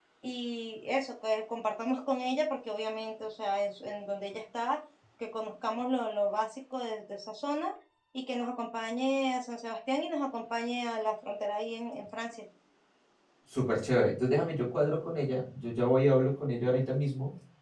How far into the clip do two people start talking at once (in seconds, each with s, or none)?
none